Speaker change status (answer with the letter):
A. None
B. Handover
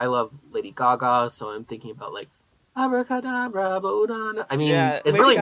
B